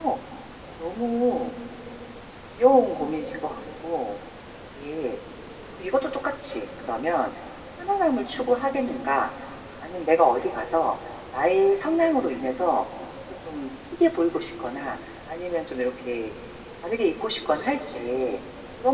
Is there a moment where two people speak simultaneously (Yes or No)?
No